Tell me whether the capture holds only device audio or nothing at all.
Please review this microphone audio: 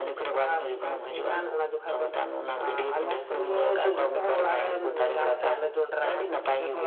Yes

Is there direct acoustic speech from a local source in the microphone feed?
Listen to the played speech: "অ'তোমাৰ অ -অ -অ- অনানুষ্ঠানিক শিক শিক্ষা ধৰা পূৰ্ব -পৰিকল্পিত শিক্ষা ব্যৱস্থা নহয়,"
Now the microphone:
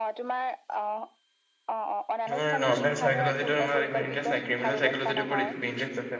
Yes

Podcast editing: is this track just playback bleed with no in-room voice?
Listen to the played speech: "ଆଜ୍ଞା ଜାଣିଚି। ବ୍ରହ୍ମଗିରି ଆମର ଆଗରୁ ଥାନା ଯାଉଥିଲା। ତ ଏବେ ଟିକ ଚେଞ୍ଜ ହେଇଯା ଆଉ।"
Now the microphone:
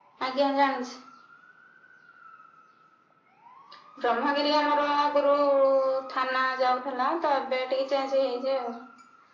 Yes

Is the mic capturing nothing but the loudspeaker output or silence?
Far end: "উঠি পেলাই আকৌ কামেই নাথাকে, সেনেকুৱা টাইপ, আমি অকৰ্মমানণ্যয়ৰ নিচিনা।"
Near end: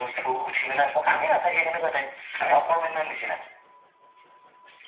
Yes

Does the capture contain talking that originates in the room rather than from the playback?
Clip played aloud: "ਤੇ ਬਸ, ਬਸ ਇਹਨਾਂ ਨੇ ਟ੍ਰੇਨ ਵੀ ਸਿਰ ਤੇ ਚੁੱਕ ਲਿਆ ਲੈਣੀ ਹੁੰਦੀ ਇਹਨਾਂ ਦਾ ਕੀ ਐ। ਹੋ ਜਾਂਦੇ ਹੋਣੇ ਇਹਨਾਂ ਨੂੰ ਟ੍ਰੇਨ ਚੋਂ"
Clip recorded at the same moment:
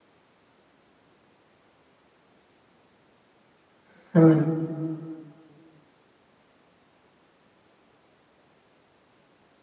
Yes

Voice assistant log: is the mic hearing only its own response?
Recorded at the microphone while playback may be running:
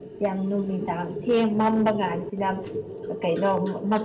No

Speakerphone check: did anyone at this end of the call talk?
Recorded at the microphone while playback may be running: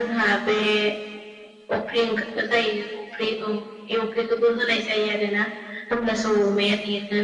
No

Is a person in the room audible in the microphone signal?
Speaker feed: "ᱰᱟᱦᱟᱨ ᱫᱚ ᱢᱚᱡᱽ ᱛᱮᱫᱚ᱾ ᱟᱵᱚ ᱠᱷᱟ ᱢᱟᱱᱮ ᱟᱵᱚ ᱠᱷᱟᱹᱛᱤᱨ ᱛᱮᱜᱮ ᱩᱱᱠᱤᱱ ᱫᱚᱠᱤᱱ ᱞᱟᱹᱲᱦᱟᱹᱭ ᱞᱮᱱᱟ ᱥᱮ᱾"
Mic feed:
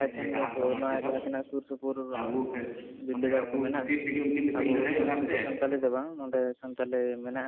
Yes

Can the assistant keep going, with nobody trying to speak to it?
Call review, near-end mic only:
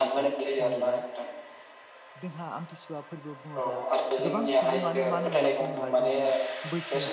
No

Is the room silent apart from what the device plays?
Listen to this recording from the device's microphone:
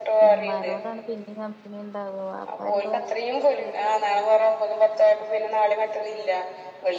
No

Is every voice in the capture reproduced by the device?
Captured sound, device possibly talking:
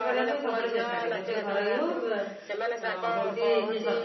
No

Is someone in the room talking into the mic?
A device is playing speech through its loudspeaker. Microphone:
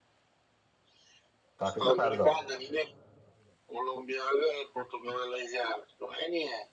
Yes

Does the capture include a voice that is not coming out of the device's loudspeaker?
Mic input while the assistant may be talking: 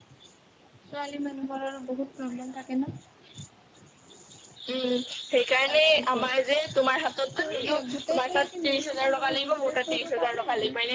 No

